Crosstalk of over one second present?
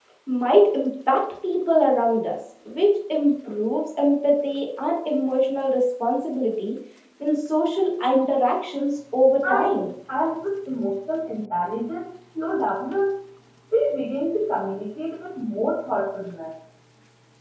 No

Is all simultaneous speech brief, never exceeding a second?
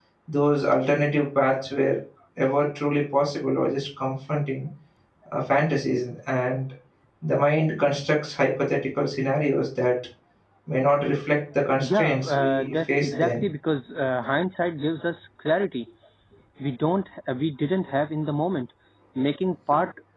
No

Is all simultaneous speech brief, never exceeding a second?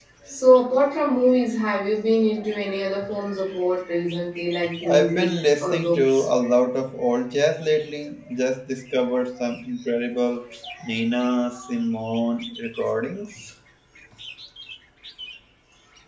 No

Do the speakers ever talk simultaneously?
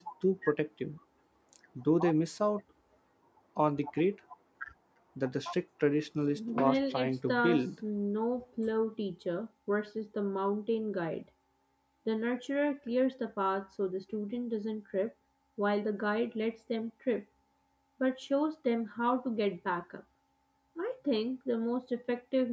Yes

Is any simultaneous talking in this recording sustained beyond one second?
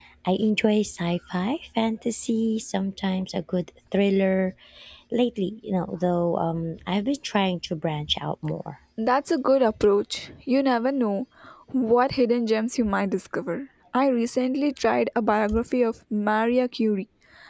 No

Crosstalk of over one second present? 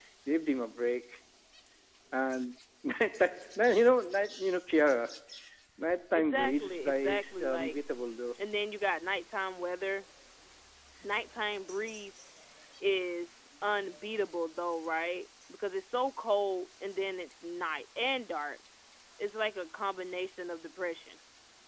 Yes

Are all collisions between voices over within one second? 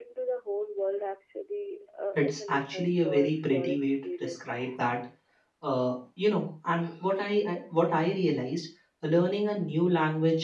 No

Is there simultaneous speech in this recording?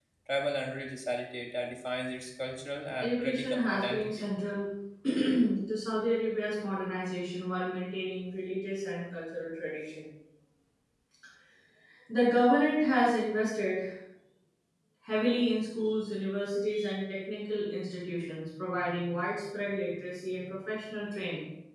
Yes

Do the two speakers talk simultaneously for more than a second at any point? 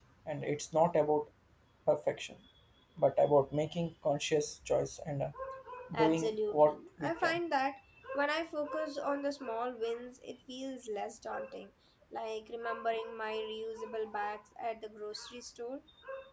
Yes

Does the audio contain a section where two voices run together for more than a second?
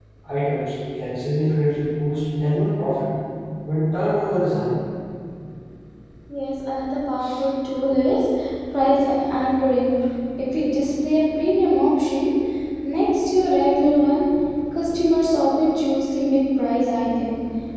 No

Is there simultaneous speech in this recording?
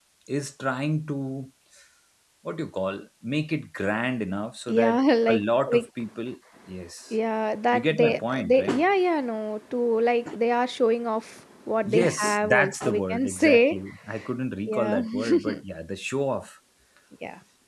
Yes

